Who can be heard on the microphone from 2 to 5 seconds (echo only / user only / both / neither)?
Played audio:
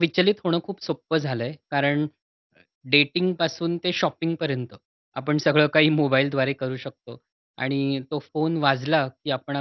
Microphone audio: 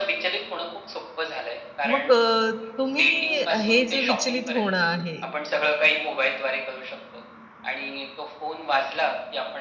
both